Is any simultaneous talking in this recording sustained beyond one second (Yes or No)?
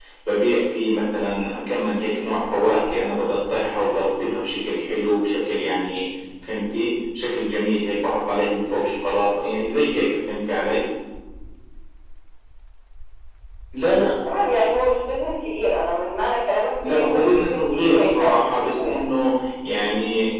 Yes